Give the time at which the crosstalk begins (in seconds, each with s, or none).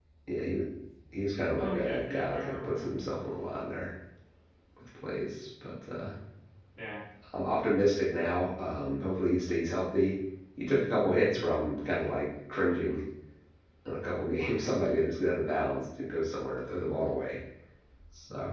1.6 s